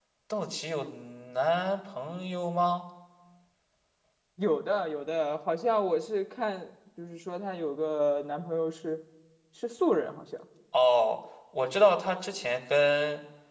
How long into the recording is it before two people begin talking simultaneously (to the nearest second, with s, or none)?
none